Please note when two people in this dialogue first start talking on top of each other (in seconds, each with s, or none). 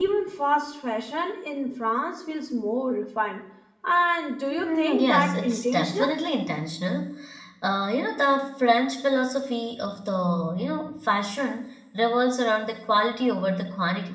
4.5 s